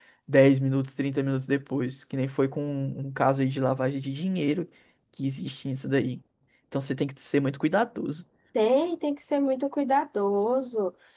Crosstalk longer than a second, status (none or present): none